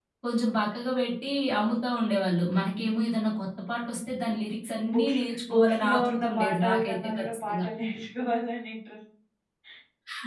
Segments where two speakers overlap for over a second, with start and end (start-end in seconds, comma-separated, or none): 4.9-7.7